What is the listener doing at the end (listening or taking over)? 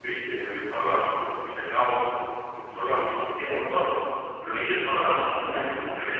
listening